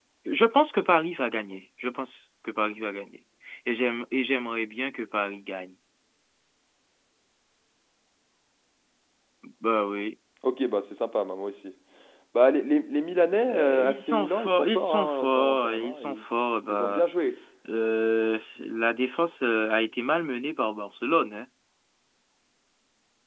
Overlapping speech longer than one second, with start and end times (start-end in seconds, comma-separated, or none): 13.5-16.2